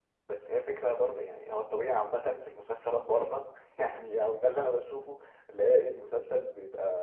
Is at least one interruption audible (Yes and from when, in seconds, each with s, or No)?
No